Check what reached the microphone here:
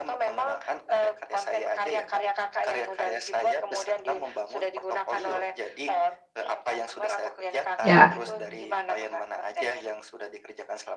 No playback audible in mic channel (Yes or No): No